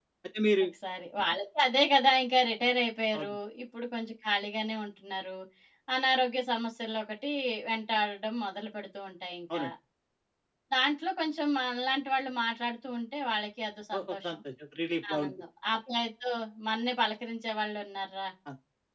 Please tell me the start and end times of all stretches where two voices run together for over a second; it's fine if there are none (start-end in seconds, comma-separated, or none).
none